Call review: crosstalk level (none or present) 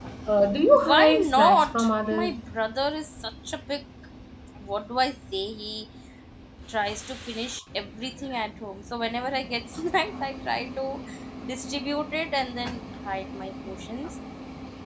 present